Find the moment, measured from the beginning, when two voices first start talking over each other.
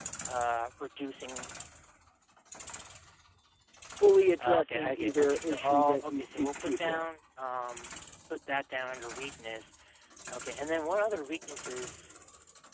4.4 s

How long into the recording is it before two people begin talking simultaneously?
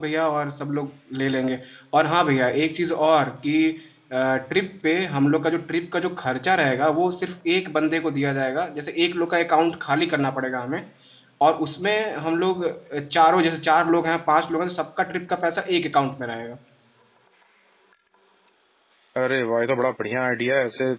none

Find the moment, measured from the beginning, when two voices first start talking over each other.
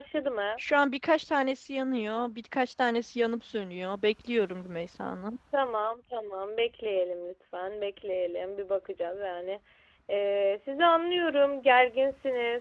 none

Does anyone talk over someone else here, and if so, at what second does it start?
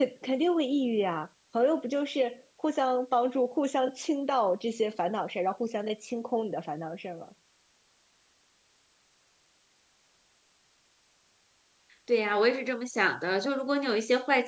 none

